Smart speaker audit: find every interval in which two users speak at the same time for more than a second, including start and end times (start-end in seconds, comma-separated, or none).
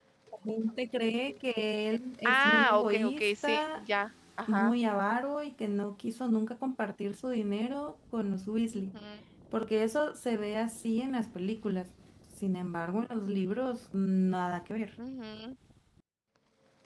2.2-3.8